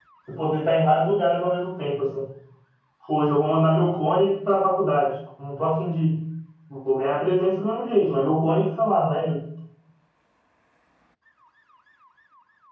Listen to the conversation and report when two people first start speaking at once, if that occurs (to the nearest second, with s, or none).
none